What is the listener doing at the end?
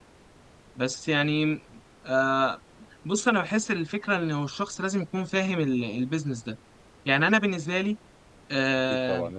taking over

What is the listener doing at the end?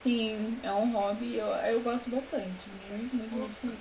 listening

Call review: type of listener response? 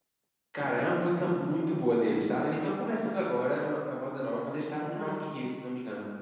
listening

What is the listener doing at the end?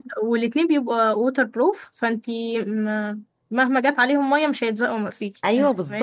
taking over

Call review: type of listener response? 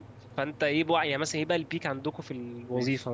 taking over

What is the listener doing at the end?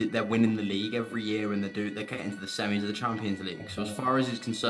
listening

